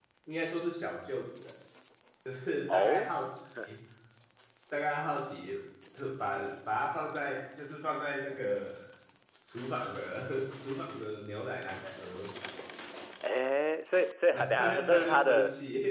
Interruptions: present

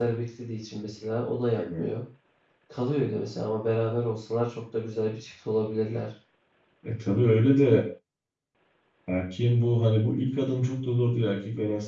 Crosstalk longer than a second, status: none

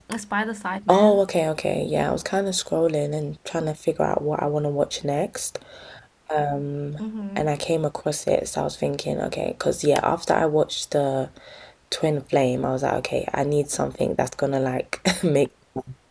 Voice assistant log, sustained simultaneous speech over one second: none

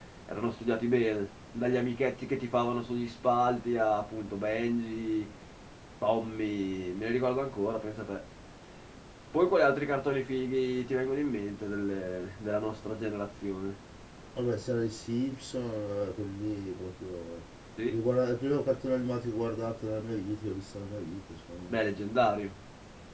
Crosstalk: none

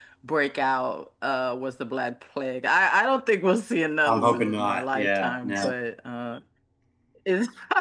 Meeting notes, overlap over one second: present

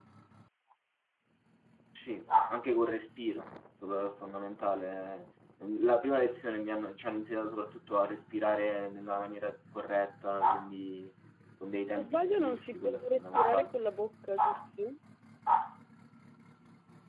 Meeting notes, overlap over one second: present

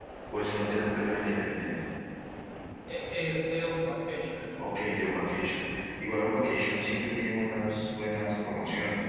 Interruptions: none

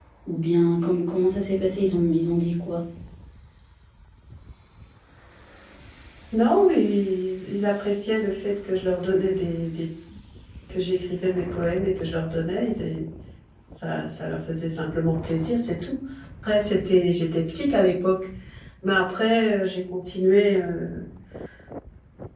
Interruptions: none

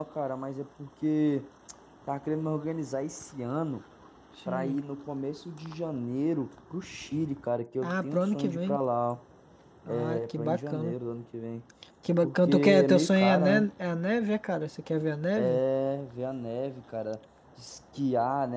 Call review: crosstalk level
present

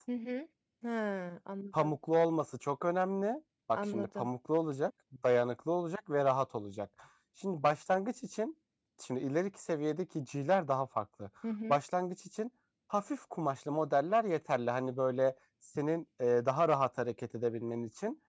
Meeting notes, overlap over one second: none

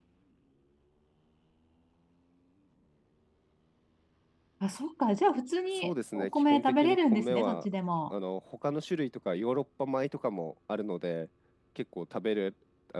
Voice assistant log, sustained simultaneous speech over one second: present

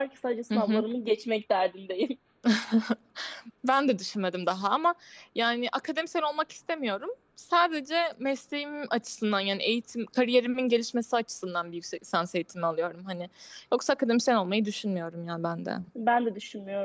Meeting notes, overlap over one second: none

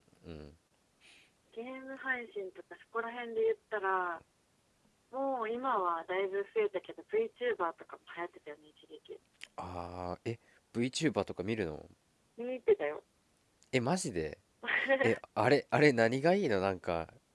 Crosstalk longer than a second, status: none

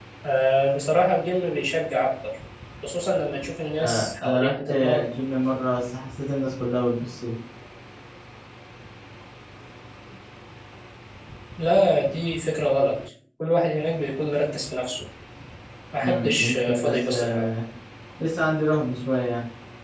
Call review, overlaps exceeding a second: present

